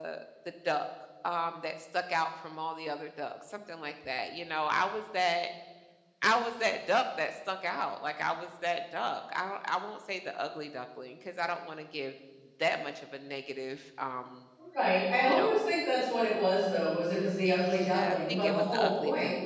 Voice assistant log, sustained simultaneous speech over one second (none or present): present